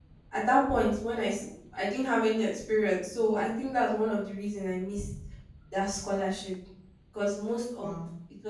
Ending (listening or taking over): listening